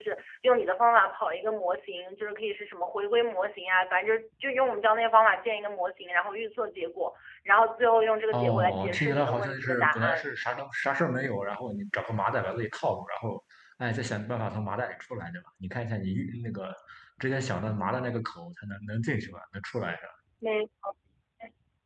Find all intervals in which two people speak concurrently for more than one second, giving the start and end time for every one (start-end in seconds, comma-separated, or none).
8.3-10.4